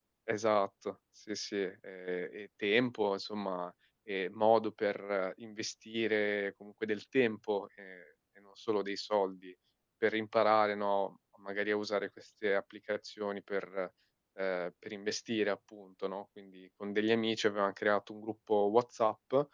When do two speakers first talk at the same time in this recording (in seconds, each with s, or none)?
none